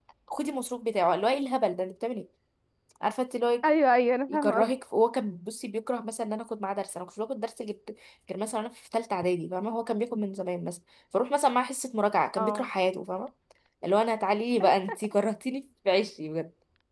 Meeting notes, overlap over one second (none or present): none